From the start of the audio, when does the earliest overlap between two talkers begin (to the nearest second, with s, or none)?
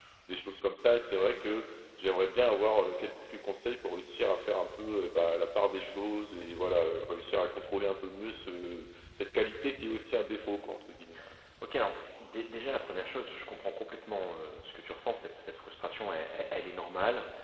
none